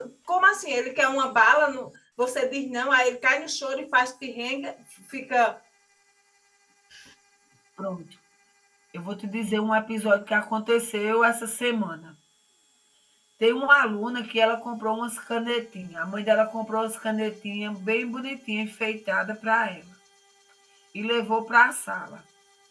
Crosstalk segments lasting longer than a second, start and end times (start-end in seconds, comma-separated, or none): none